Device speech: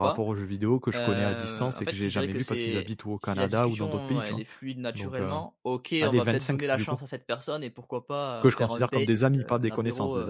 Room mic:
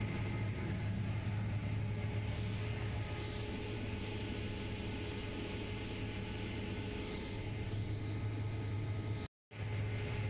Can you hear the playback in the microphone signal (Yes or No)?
No